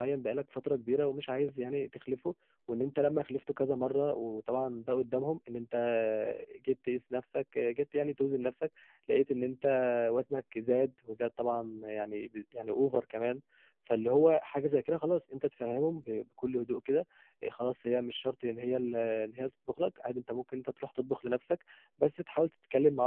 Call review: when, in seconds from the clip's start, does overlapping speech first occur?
none

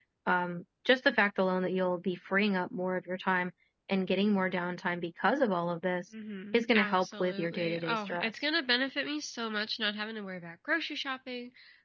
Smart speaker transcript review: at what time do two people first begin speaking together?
7 s

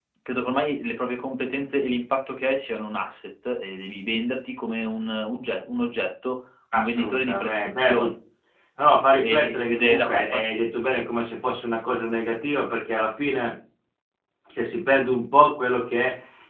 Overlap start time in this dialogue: 7 s

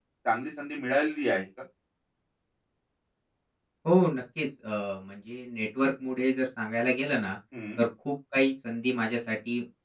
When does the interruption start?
none

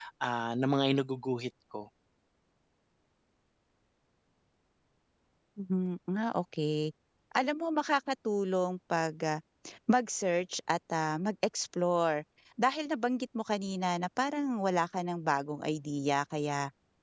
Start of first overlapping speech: none

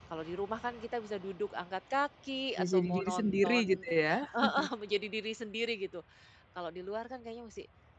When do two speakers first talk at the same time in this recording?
3 s

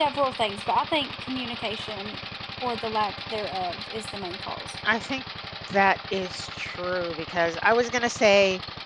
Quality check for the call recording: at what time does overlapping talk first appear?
none

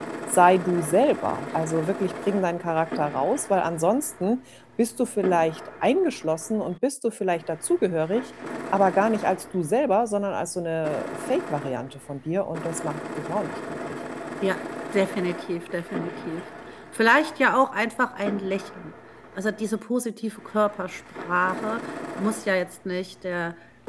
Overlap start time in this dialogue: none

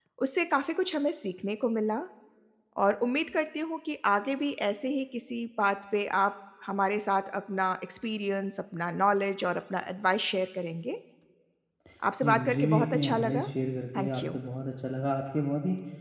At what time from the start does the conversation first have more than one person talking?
12 s

